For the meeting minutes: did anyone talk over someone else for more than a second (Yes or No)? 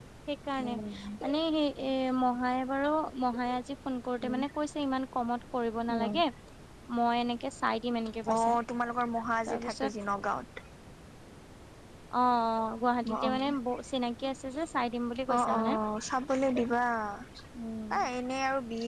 No